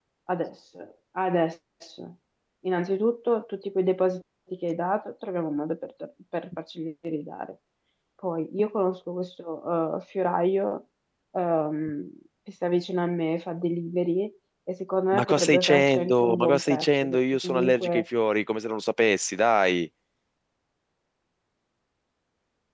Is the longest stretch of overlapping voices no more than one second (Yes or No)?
No